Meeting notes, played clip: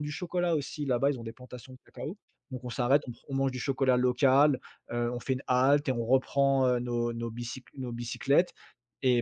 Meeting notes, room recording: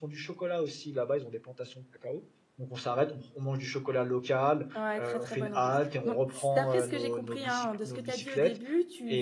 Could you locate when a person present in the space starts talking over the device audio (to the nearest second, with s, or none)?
5 s